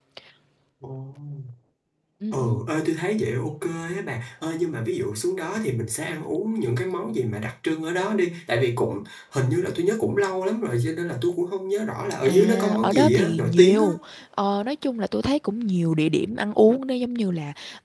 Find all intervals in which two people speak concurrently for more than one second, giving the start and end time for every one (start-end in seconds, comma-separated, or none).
12.3-13.8